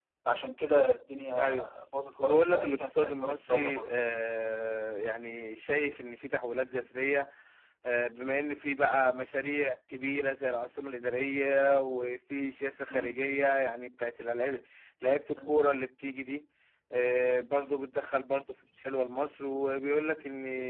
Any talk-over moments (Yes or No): Yes